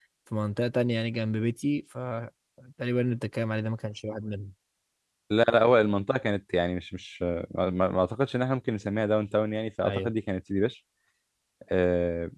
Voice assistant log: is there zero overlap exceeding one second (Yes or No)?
Yes